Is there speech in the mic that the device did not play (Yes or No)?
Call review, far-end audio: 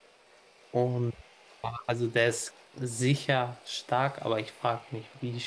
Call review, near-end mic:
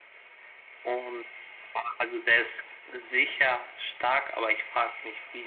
No